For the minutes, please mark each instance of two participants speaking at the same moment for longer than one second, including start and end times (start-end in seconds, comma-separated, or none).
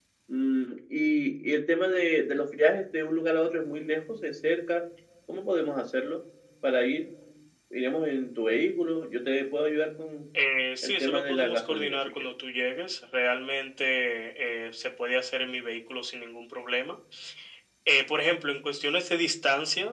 10.8-12.2